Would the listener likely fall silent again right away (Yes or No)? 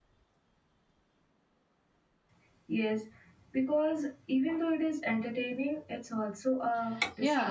No